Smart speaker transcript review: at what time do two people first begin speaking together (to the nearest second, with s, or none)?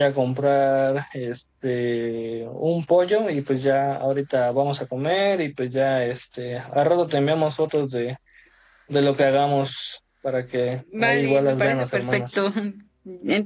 11 s